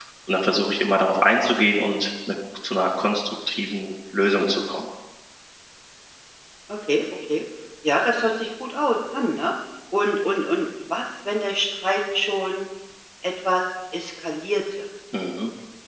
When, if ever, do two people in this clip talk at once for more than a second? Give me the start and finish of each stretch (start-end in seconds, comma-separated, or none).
none